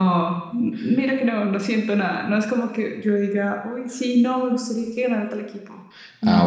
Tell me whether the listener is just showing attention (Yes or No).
No